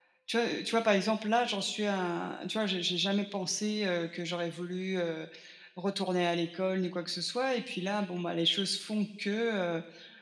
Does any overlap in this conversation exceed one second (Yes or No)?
No